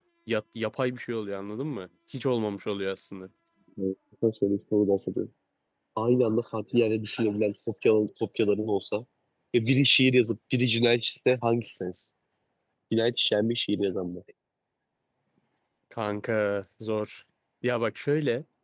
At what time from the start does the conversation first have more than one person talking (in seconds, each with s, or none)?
none